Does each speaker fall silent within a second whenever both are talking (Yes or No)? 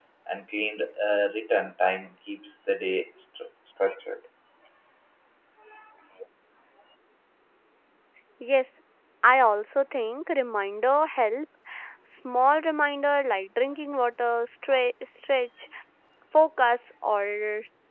Yes